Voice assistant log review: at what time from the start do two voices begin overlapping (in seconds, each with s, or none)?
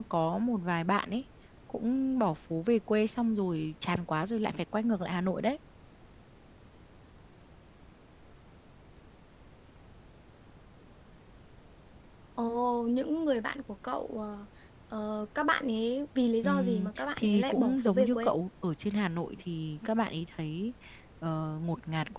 16.4 s